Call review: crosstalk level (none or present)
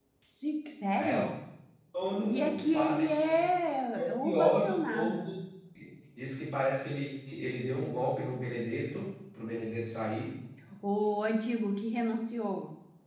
present